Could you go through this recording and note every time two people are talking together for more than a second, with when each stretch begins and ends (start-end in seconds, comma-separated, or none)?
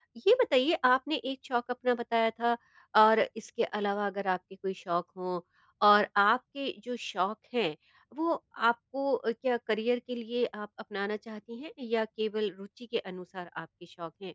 none